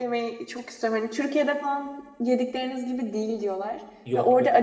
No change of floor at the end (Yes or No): Yes